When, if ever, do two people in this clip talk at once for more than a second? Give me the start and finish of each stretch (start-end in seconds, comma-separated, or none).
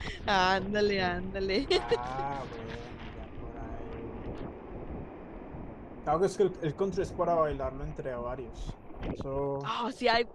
none